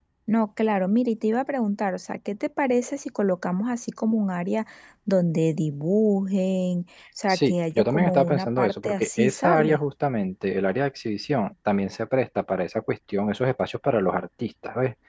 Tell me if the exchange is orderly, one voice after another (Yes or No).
No